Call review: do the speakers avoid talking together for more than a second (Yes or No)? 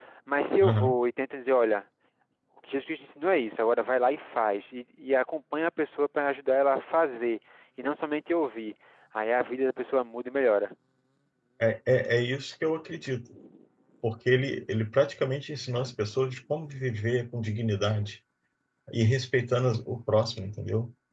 Yes